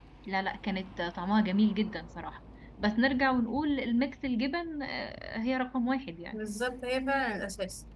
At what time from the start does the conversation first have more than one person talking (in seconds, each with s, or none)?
none